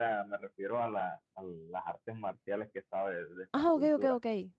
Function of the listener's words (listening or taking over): taking over